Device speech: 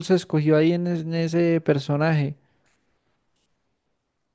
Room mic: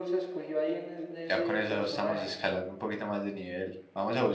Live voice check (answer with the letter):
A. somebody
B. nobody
A